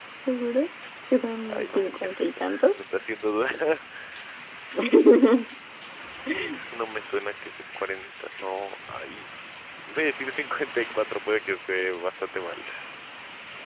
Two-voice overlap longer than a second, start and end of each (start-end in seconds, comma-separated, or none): 1.5-2.8